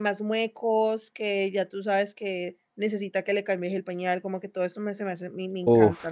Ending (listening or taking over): taking over